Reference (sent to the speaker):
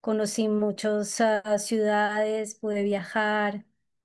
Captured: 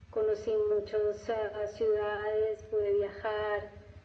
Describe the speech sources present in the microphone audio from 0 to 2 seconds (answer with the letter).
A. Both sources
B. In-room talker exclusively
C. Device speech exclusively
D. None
C